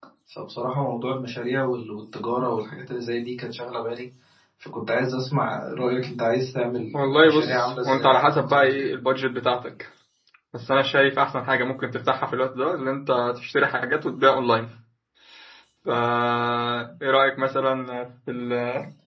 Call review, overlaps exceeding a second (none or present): present